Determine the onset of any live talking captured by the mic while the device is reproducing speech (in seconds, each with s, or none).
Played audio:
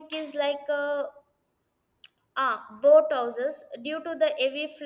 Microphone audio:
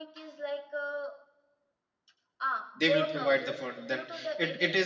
2.8 s